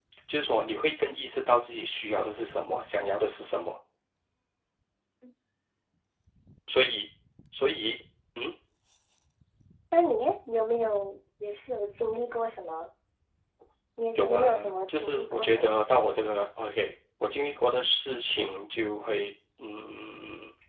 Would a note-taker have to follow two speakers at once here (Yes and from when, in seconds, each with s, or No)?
Yes, from 14.2 s